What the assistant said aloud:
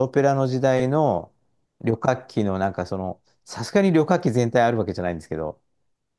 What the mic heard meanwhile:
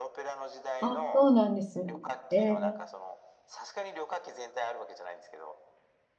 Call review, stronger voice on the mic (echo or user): user